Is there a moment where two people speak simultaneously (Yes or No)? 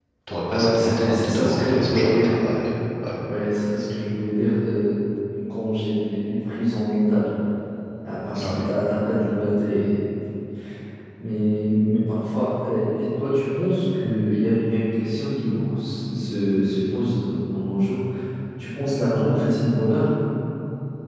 Yes